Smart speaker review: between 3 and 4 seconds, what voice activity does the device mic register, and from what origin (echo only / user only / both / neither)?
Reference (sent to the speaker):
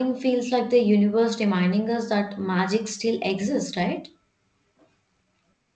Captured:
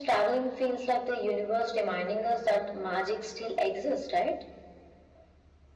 echo only